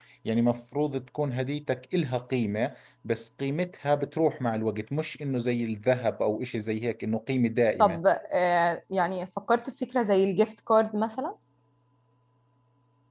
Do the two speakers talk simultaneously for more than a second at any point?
No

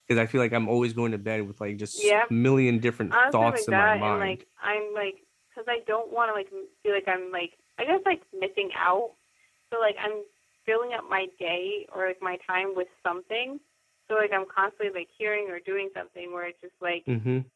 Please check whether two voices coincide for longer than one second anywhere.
Yes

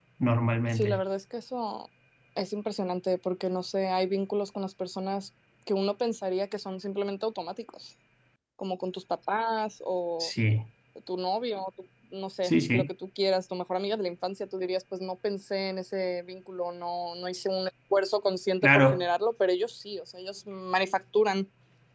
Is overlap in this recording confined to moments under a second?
Yes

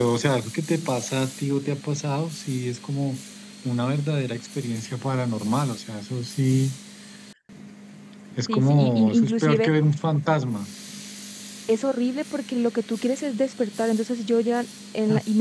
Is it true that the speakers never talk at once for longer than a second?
No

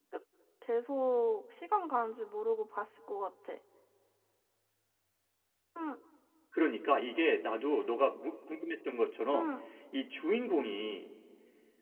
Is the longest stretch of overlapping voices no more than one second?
Yes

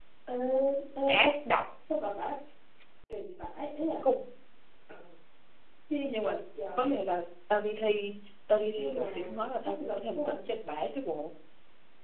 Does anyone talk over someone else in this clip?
Yes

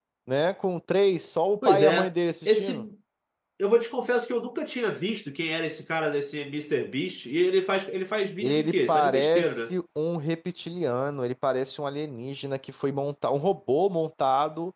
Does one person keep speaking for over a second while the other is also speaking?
Yes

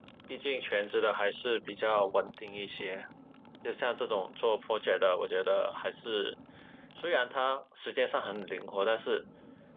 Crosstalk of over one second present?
No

